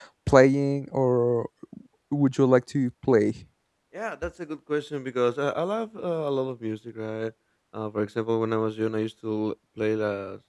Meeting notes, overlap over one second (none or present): none